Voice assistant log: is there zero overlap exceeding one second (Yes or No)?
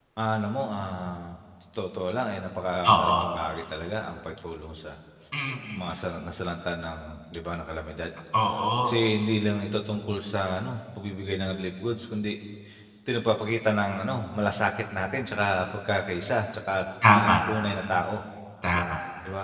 Yes